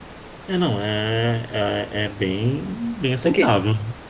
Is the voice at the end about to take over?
Yes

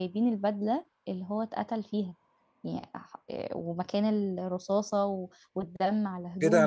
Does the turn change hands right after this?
Yes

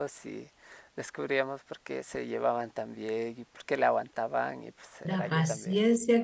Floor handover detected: Yes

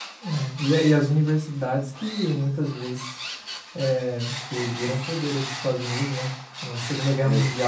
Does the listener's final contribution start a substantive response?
No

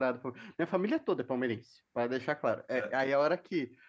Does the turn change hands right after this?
No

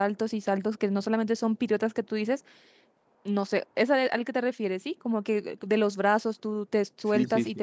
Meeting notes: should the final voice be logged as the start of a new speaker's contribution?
Yes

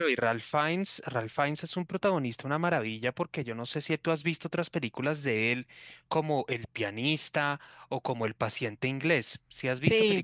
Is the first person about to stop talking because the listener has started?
Yes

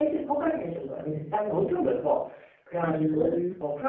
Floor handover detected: No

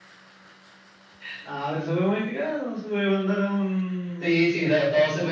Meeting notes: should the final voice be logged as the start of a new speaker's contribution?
Yes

